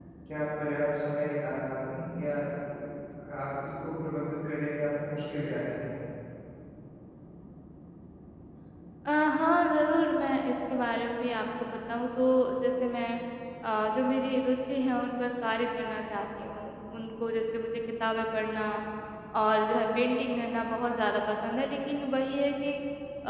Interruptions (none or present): none